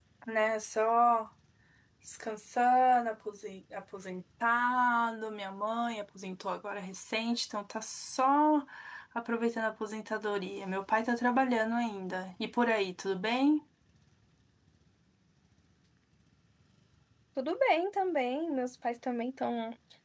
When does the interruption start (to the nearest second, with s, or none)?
none